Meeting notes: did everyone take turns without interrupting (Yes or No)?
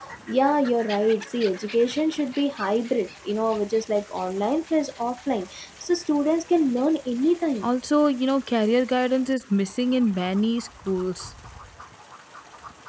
Yes